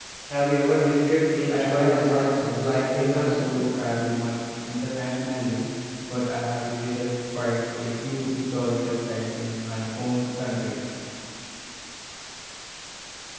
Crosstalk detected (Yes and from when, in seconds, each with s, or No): Yes, from 1.5 s